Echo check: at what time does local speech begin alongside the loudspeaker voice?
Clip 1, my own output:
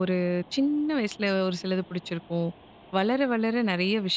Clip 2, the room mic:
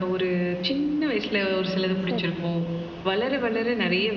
2.0 s

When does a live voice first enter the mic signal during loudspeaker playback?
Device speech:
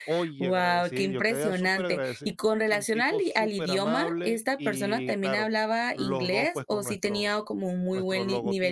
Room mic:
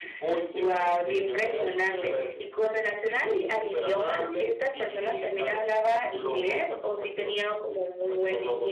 none

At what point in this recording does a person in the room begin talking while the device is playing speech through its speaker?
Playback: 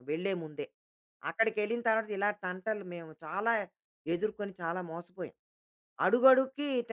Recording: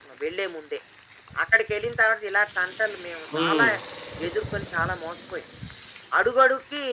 3.3 s

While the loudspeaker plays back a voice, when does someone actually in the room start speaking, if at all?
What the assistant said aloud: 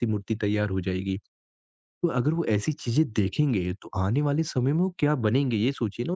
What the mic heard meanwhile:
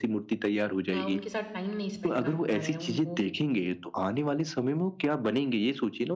0.9 s

